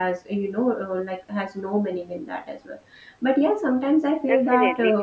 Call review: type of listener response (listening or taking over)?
taking over